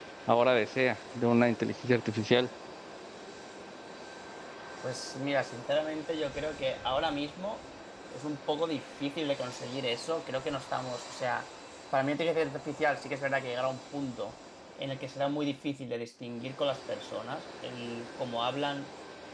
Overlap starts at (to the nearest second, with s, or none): none